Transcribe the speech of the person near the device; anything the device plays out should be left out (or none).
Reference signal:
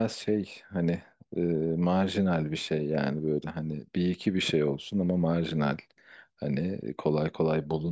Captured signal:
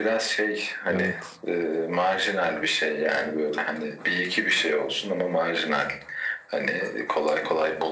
Evet.